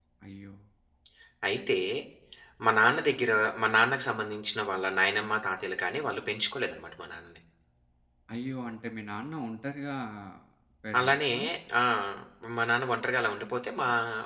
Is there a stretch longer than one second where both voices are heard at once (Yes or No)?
No